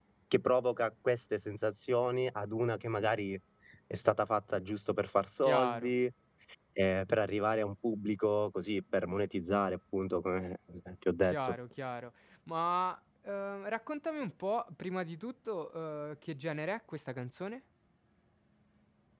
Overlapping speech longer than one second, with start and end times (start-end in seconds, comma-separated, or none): none